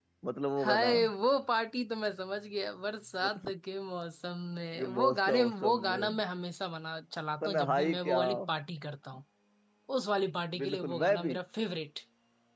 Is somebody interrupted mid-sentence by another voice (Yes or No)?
Yes